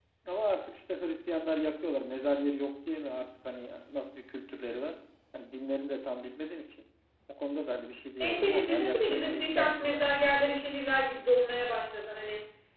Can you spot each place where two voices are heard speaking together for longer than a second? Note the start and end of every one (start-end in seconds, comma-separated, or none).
8.2-10.0